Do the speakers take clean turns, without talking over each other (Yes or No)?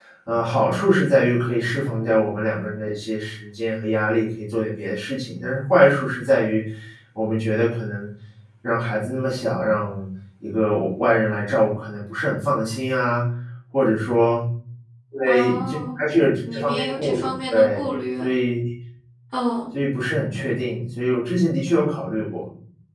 No